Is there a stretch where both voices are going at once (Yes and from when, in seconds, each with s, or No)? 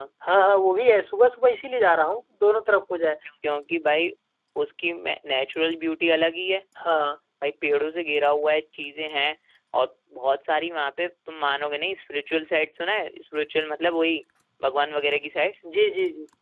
No